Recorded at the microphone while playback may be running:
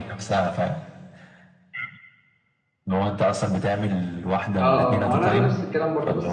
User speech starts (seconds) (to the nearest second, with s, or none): 5 s